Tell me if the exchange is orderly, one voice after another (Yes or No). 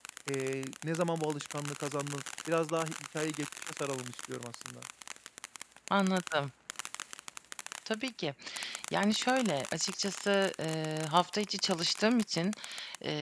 Yes